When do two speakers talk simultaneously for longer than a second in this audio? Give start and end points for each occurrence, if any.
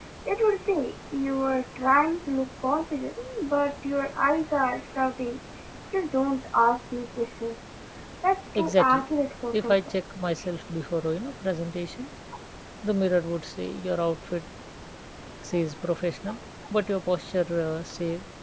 none

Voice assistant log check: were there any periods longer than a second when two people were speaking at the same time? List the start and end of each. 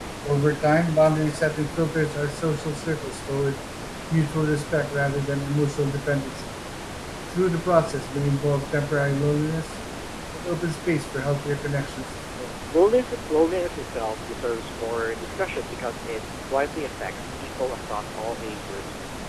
none

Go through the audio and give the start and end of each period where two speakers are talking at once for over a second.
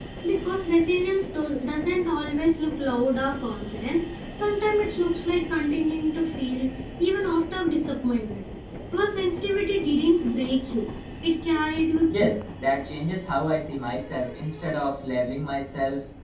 none

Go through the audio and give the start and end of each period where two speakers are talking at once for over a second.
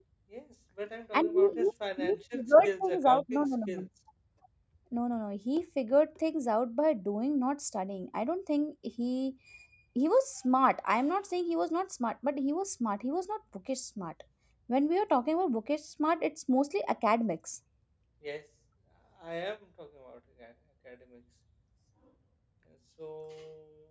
2.0-3.9

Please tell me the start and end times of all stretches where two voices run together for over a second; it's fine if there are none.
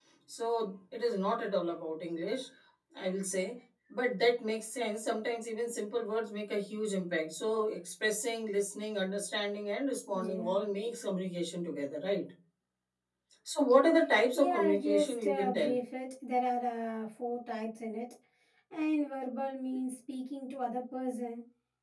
14.3-15.8

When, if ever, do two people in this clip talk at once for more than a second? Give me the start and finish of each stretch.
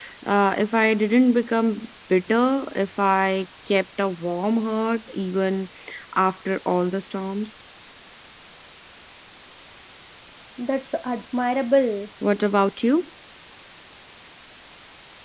none

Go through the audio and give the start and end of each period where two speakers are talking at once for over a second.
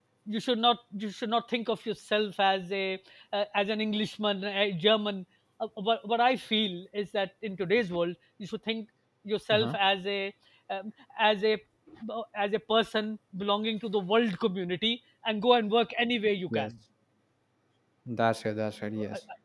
none

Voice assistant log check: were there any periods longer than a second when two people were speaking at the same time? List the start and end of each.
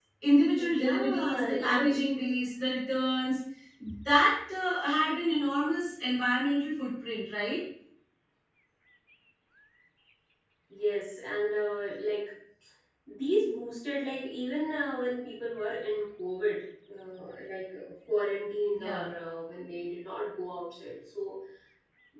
0.7-1.9

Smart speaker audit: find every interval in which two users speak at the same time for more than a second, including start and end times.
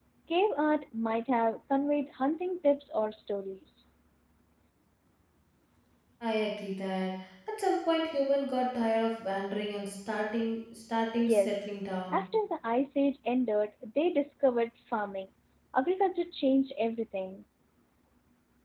none

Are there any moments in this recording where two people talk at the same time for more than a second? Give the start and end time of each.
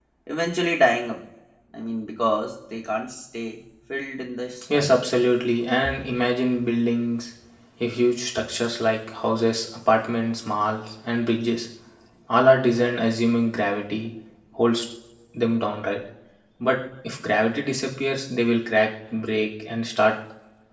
none

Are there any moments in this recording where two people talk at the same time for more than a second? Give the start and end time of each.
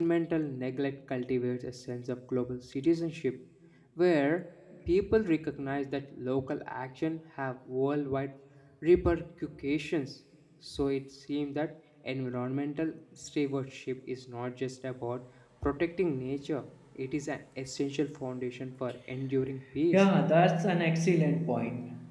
none

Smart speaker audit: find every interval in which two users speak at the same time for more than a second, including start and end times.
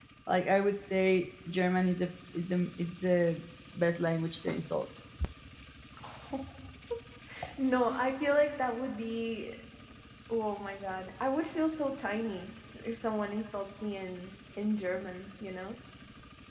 none

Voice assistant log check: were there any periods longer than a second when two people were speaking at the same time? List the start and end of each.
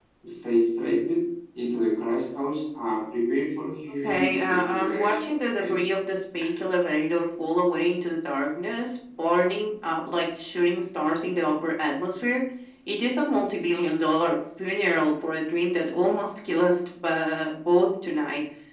4.0-5.7

